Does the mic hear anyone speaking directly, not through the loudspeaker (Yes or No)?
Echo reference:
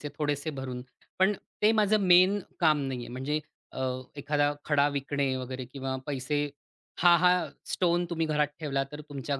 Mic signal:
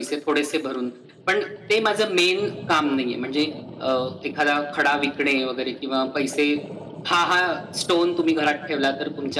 No